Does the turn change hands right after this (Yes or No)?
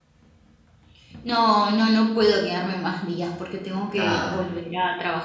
No